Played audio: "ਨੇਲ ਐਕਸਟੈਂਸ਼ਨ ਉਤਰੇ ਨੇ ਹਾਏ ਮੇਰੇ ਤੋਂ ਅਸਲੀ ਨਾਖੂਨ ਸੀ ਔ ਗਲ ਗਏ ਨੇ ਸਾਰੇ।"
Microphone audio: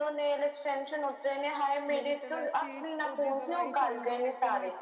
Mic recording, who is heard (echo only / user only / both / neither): both